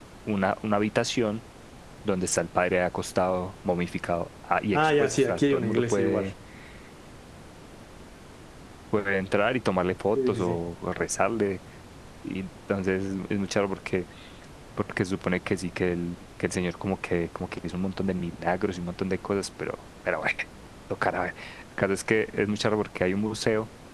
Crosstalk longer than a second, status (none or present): present